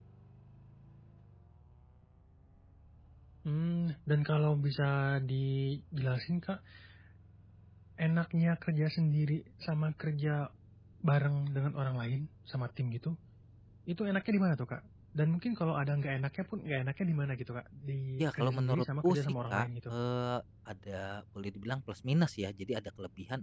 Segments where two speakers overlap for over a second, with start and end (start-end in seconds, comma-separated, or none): 18.2-19.9